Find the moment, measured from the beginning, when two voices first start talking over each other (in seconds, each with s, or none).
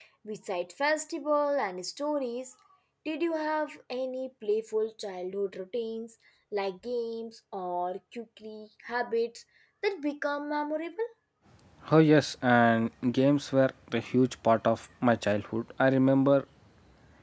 none